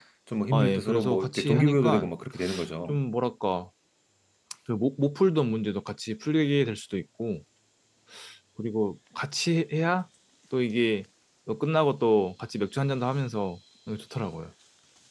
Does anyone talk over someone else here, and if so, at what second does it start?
1 s

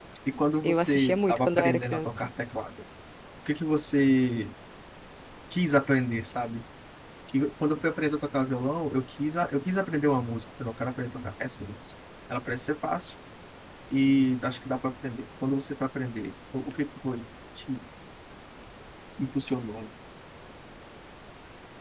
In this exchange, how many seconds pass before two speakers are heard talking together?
1 s

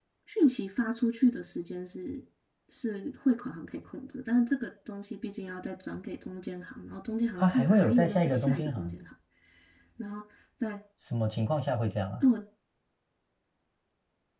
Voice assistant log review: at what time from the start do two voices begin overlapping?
7 s

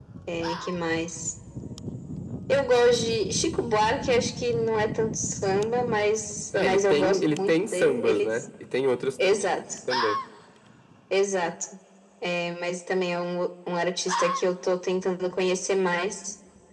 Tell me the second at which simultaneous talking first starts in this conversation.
7 s

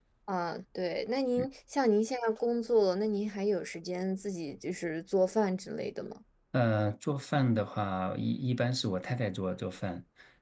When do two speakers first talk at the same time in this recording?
none

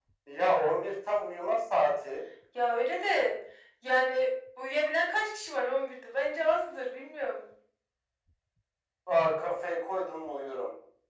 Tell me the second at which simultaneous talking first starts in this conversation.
none

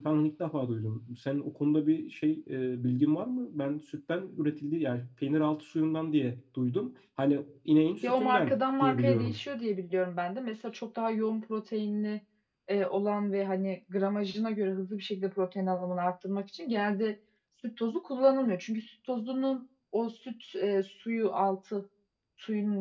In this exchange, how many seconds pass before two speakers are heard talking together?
8 s

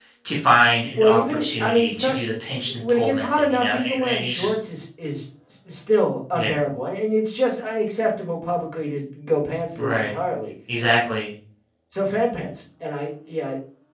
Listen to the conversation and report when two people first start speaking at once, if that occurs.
1 s

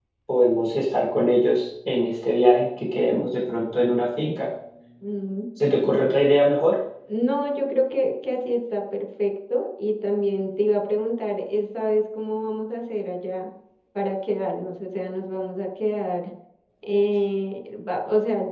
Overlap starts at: none

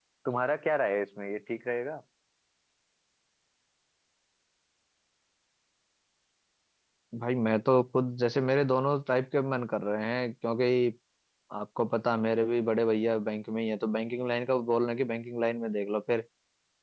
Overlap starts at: none

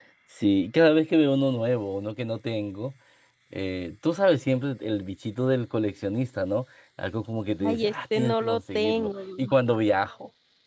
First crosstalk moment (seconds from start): 8 s

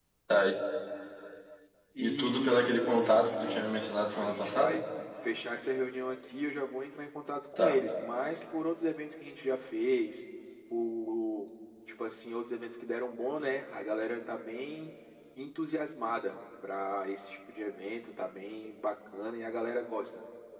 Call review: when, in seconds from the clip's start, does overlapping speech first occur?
2 s

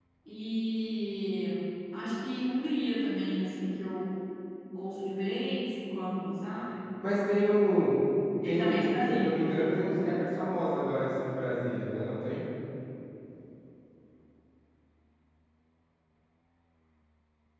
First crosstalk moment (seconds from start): 8 s

